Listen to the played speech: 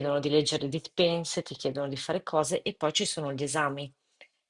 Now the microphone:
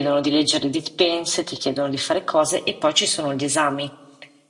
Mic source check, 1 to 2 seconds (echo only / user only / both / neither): echo only